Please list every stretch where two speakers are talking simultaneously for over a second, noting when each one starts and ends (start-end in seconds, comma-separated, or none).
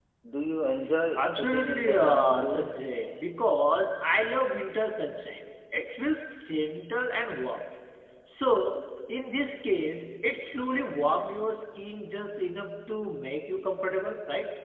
1.1-2.7